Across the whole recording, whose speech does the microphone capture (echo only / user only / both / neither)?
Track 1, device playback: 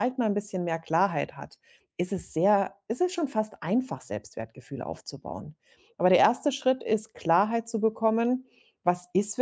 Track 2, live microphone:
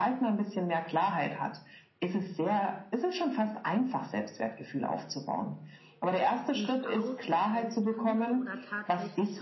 both